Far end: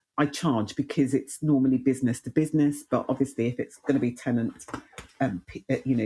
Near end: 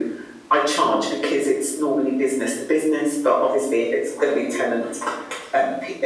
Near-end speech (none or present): none